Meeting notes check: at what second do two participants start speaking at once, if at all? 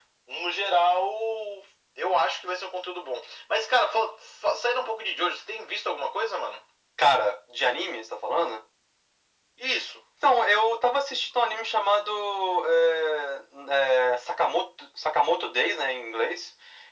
none

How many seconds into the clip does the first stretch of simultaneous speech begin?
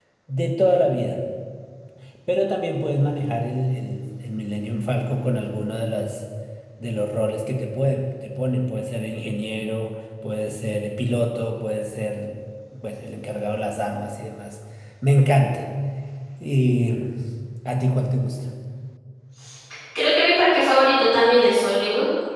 none

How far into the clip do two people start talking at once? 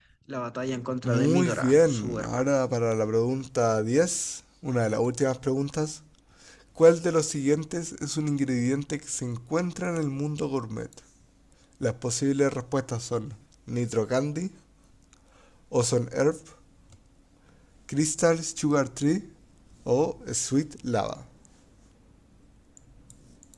1.0 s

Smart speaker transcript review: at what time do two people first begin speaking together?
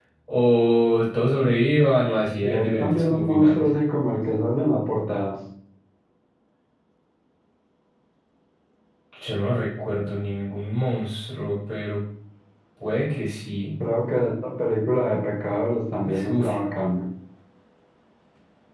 2.4 s

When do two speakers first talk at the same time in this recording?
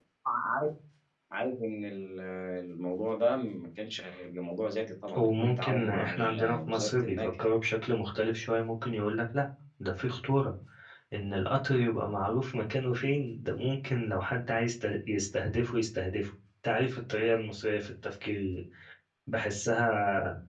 5.1 s

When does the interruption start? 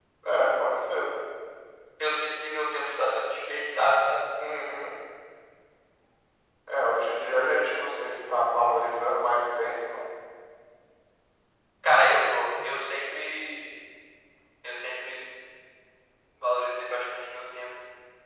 none

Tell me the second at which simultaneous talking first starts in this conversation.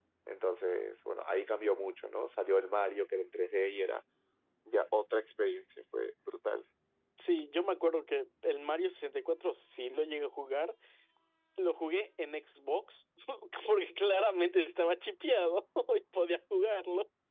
none

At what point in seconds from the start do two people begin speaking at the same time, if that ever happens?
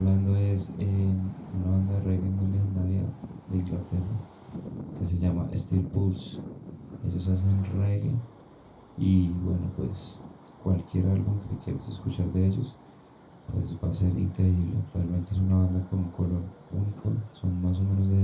none

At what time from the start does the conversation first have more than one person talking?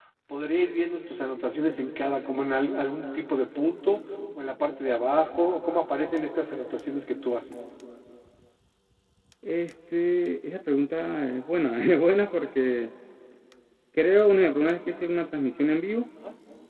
none

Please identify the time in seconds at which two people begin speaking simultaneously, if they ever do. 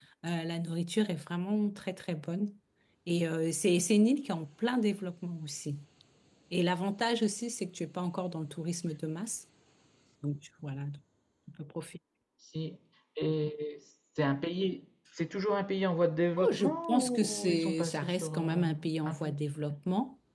16.4 s

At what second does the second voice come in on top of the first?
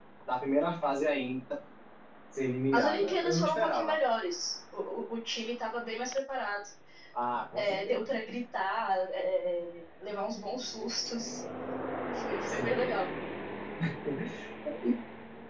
2.7 s

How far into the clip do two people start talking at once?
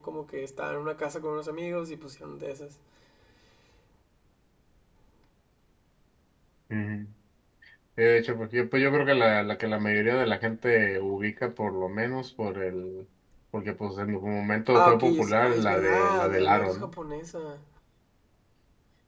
14.7 s

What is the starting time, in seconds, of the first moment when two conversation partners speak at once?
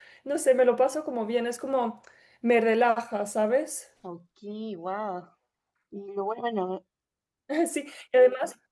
none

